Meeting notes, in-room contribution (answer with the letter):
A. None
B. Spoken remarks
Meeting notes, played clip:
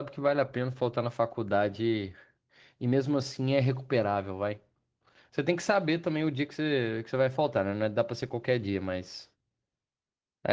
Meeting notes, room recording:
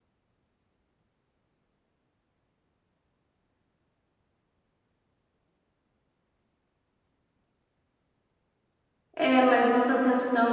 B